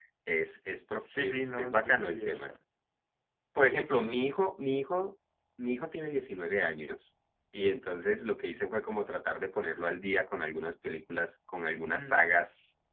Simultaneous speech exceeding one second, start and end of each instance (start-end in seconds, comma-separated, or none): 1.2-2.5